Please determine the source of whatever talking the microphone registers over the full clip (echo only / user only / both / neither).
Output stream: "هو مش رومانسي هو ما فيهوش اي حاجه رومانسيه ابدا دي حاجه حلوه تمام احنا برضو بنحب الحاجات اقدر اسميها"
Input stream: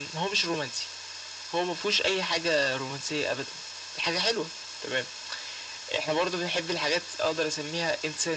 echo only